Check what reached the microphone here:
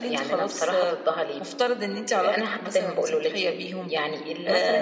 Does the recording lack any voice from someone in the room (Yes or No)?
Yes